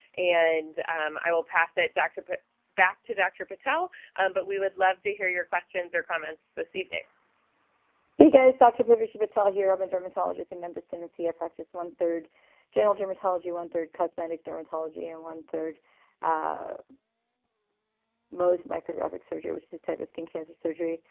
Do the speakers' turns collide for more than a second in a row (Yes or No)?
No